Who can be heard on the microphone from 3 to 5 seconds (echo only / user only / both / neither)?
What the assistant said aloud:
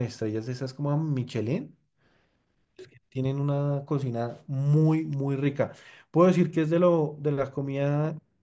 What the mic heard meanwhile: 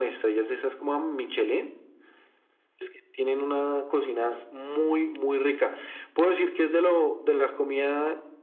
echo only